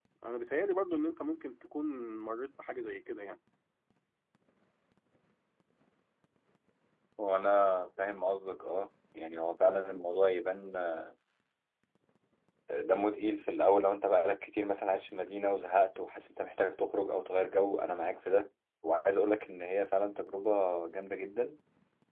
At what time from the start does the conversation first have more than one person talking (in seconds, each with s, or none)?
none